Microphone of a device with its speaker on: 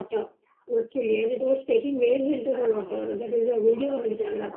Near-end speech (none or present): present